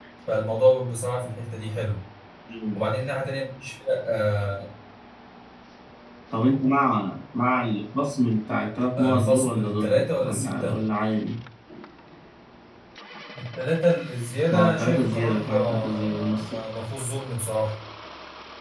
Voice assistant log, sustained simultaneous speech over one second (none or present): present